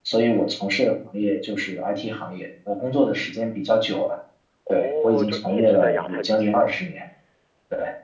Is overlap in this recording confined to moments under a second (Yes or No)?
No